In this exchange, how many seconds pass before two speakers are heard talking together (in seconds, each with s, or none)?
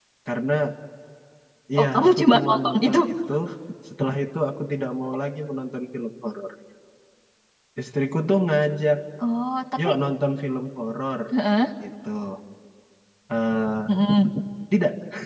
1.8 s